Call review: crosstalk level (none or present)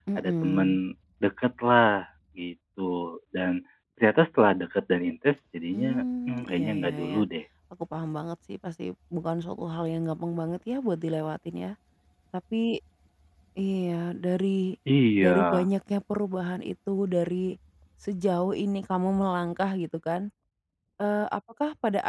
present